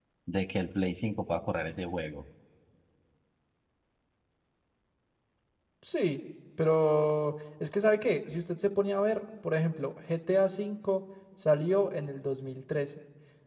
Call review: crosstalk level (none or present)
none